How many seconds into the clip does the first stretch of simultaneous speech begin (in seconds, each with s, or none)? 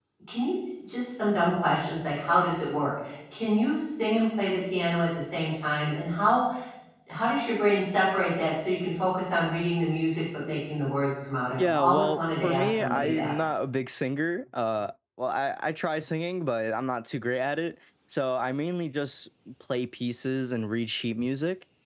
11.6 s